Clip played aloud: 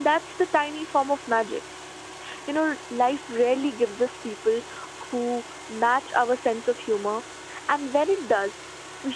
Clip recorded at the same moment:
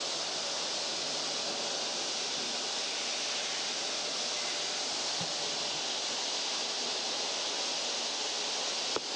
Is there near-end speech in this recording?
No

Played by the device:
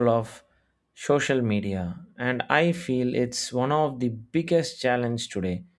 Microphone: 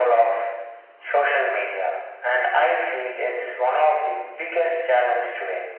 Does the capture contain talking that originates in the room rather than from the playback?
No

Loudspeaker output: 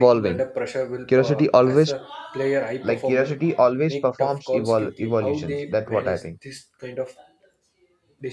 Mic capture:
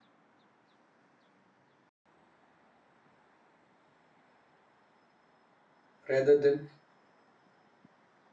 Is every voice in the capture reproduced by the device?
No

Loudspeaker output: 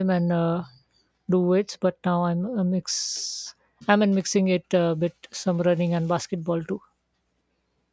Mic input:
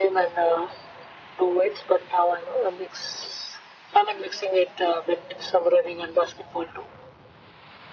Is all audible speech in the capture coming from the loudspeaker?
Yes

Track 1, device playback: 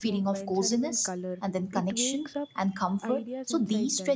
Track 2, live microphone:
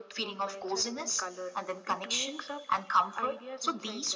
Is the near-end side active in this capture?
No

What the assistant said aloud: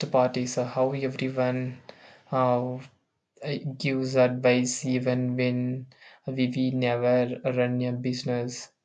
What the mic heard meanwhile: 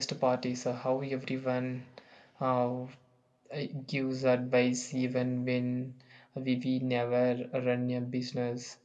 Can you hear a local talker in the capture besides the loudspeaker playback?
No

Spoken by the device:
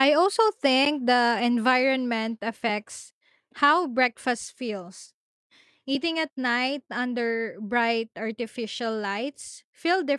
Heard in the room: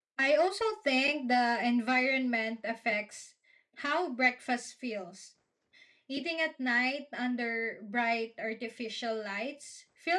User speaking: No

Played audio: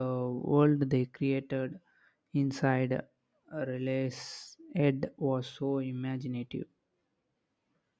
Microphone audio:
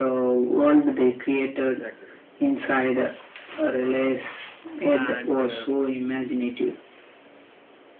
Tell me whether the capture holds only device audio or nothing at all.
No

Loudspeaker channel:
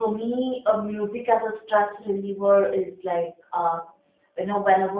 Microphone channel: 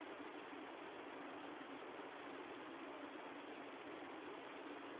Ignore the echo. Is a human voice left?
No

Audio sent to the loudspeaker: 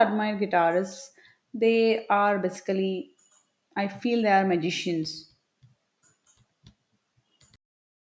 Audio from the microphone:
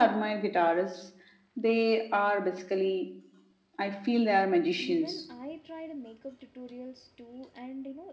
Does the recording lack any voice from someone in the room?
No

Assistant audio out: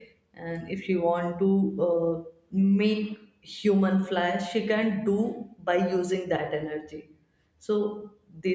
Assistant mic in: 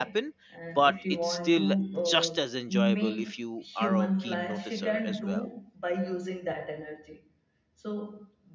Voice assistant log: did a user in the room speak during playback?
Yes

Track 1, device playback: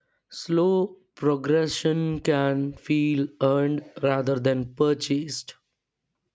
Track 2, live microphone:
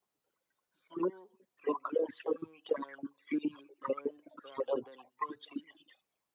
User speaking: No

